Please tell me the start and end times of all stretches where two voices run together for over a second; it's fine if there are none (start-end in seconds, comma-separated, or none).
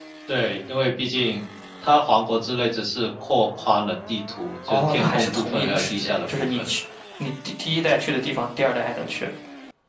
4.7-6.7